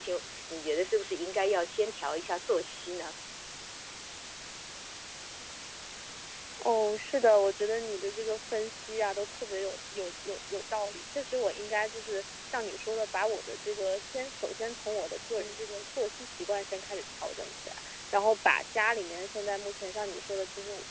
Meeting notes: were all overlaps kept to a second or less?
Yes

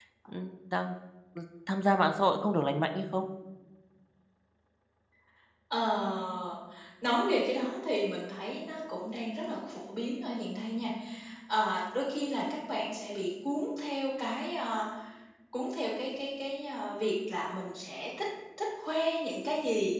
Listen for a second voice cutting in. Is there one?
No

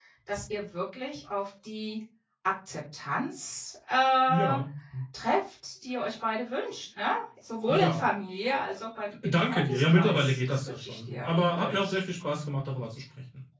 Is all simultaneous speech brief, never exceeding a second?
No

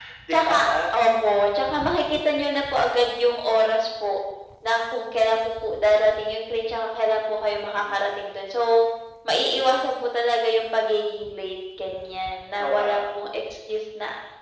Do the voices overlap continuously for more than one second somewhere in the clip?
No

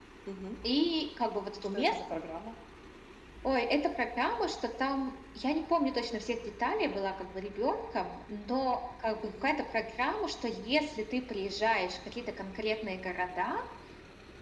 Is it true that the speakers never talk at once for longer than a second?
Yes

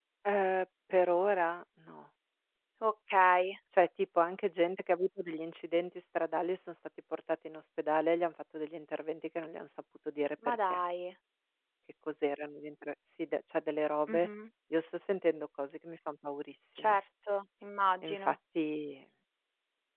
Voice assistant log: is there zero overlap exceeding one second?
Yes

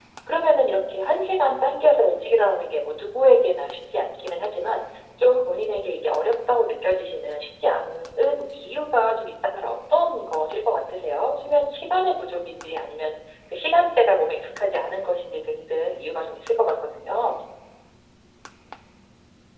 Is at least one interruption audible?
No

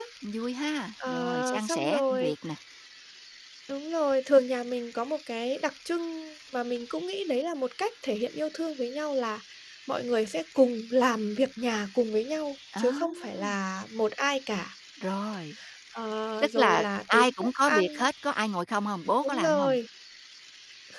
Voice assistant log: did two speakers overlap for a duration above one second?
Yes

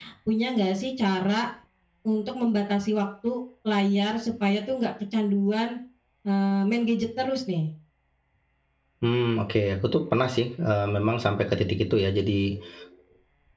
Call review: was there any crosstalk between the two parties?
No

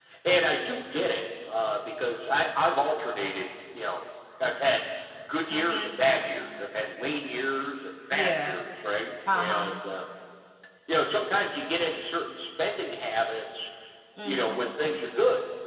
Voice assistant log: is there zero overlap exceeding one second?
Yes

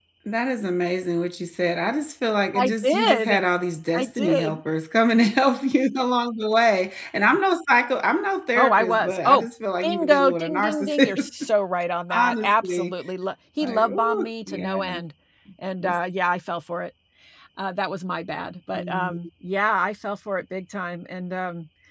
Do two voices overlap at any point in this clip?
Yes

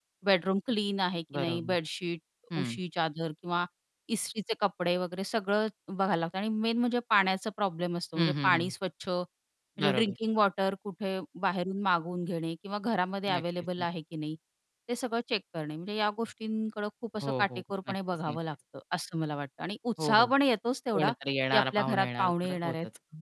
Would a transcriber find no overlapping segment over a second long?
No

